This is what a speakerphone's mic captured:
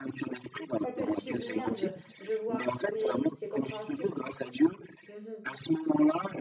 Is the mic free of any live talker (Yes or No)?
No